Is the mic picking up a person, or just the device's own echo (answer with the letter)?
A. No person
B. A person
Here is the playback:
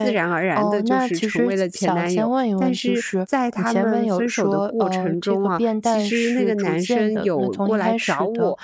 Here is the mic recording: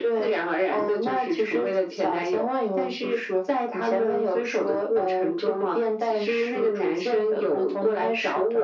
A